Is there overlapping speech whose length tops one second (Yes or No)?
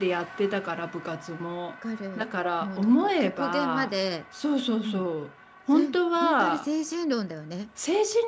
Yes